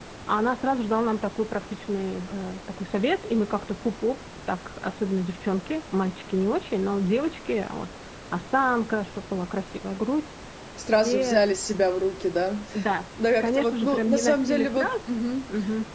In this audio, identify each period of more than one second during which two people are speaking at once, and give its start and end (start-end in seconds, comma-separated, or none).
13.4-14.9